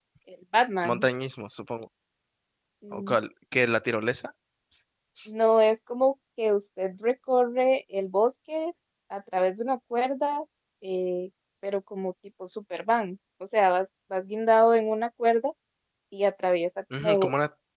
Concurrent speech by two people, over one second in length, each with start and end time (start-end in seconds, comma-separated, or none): none